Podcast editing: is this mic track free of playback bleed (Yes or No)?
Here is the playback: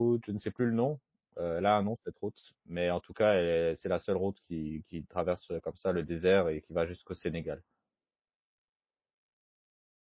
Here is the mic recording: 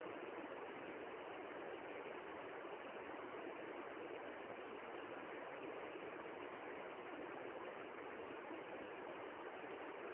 Yes